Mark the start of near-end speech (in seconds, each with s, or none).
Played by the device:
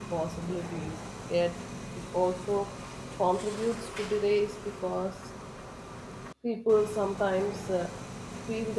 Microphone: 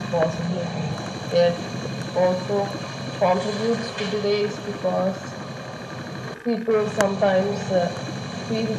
none